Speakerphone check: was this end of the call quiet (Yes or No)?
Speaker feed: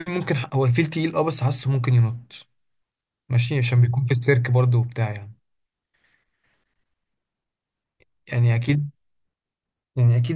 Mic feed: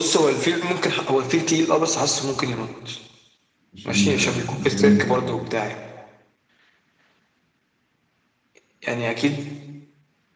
No